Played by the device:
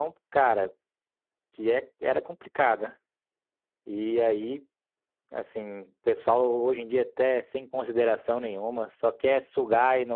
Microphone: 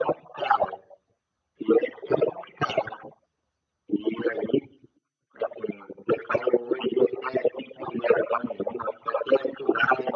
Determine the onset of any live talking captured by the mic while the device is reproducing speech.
none

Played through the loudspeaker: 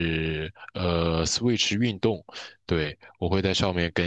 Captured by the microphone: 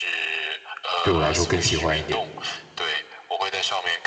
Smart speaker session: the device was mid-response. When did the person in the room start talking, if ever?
1.0 s

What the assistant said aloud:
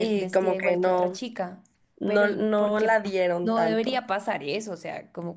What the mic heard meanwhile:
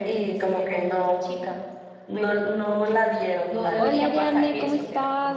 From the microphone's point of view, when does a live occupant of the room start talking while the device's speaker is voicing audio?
3.7 s

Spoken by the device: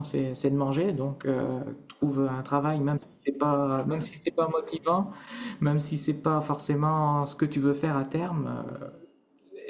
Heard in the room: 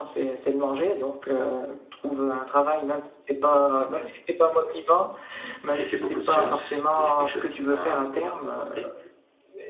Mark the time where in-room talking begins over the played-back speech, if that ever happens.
5.6 s

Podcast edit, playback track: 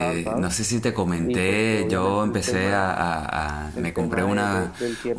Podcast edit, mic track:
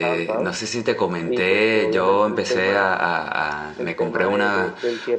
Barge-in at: none

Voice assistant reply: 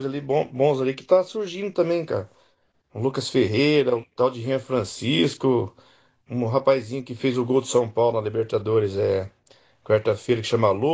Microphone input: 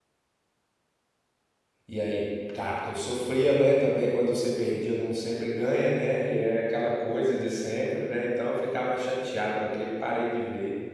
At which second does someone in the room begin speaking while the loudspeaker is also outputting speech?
1.9 s

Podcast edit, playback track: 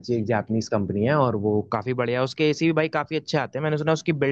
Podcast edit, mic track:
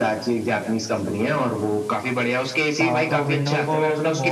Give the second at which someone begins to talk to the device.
2.8 s

